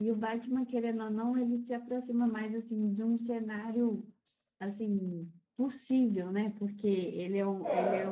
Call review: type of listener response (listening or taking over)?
listening